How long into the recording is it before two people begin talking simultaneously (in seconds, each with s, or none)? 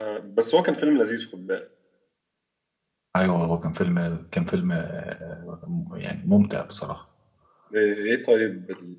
none